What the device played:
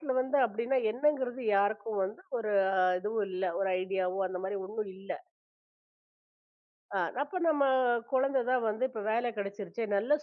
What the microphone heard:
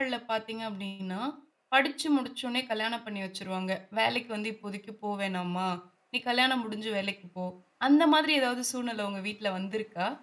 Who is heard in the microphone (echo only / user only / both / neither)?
user only